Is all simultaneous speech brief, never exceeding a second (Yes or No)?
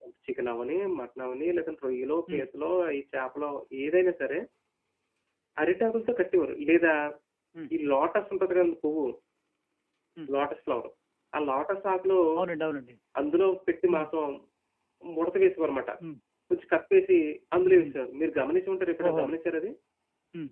Yes